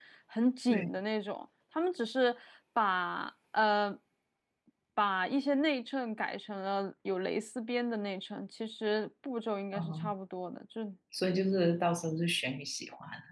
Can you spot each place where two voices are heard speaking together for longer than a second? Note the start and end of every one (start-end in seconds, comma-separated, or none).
none